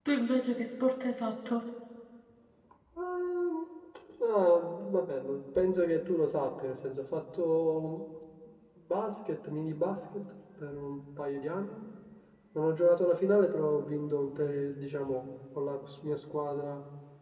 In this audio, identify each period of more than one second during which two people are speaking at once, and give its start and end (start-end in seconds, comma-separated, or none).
none